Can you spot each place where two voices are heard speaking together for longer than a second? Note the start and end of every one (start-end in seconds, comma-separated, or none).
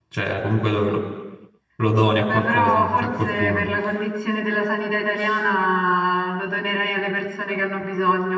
2.2-3.6